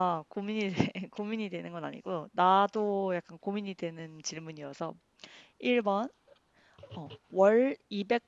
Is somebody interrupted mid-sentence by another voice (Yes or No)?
No